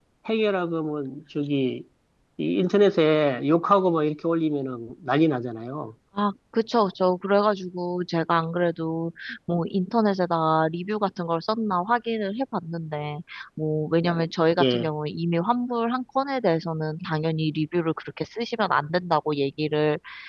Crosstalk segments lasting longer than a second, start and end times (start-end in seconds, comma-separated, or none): none